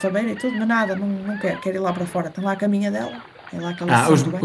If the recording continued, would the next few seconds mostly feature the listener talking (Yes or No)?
Yes